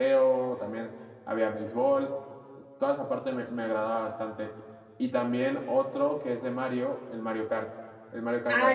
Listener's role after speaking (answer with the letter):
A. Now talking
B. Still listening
A